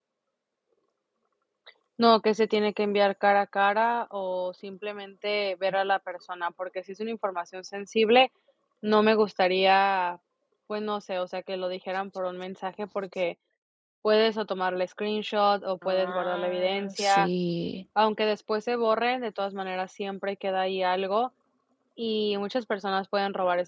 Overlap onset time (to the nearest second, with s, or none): 16 s